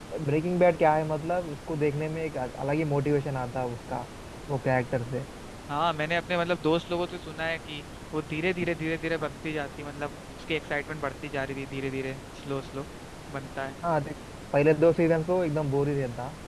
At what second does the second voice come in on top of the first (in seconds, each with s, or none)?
none